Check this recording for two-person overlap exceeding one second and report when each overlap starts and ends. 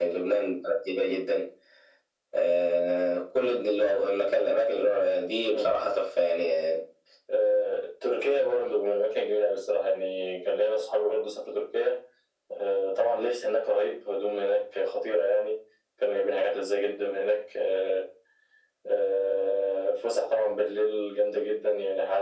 none

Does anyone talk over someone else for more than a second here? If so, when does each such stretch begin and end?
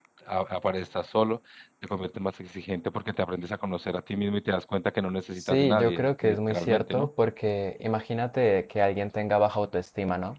5.3-7.1

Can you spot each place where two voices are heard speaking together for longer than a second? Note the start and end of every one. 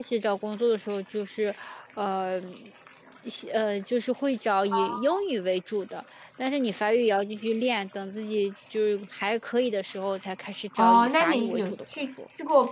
10.8-12.1

